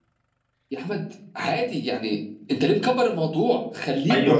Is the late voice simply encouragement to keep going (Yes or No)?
No